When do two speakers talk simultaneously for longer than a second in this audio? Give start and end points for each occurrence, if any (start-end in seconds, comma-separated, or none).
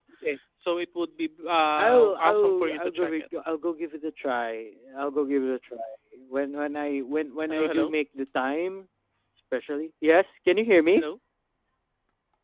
1.8-3.3